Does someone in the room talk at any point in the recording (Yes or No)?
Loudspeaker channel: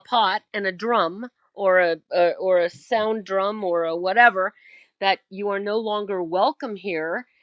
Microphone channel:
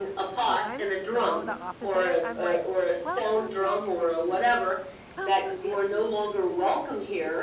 Yes